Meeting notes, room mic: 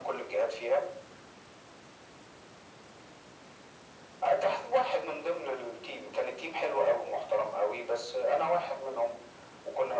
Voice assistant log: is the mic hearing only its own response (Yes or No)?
Yes